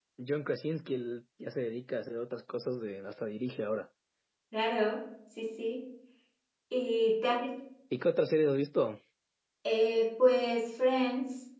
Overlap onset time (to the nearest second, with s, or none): none